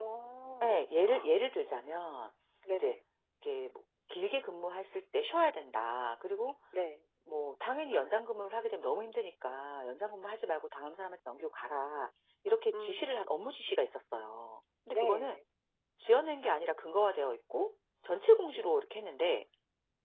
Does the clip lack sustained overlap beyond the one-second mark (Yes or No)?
Yes